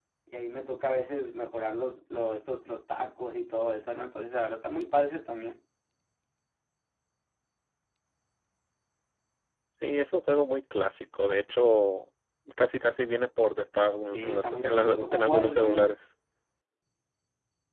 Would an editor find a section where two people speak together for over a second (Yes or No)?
Yes